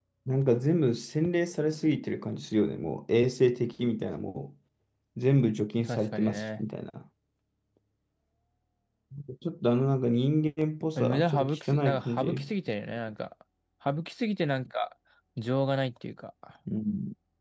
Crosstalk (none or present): present